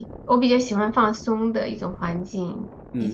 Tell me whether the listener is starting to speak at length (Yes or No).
Yes